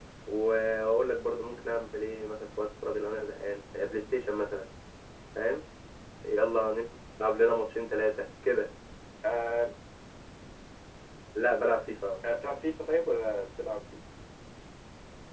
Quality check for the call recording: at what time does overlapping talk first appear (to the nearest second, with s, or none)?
none